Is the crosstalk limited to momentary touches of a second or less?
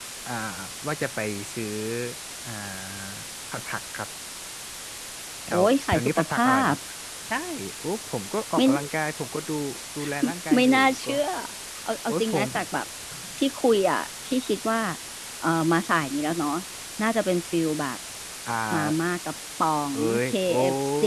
No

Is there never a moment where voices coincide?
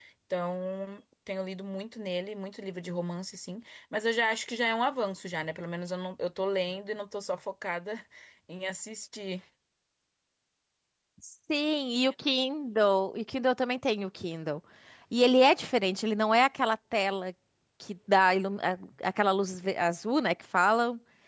Yes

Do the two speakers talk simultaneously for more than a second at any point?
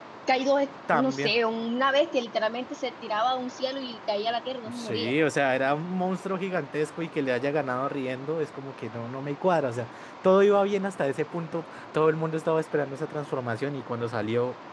No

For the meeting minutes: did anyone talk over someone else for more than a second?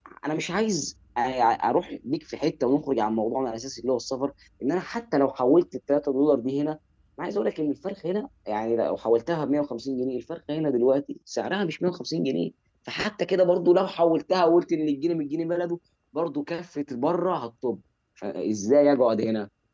No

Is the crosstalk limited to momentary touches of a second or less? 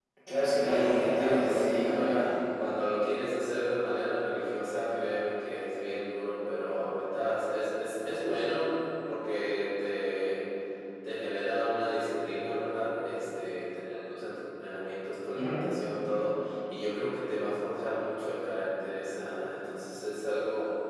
No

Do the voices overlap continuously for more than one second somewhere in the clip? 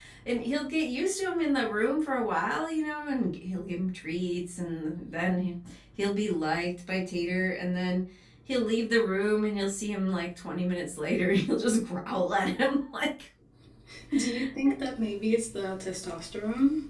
No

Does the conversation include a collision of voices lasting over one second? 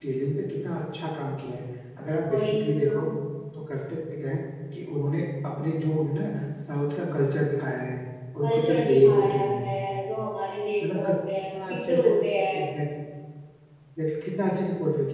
Yes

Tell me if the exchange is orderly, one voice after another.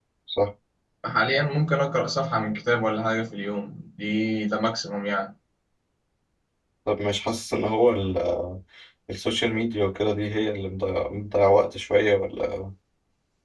Yes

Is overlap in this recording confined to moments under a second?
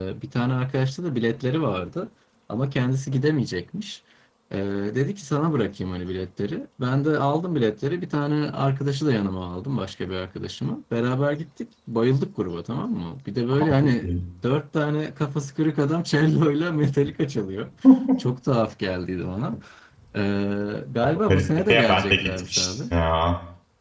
No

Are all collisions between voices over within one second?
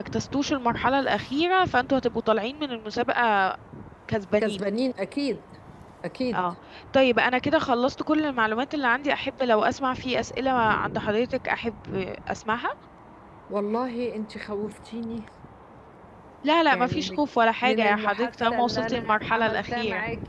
No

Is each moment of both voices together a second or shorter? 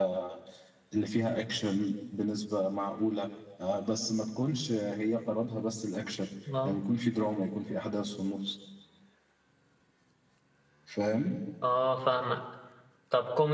Yes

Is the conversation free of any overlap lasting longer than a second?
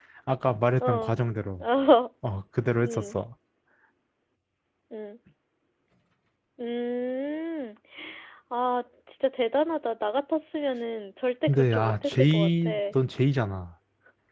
No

